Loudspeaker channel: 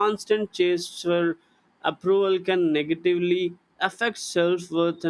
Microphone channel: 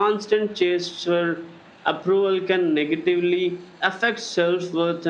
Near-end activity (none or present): none